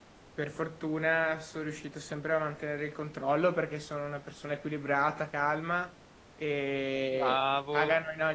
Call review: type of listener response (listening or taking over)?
listening